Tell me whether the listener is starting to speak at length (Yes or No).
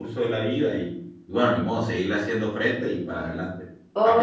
Yes